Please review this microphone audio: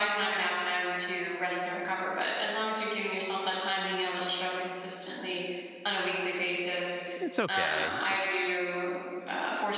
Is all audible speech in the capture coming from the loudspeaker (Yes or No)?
No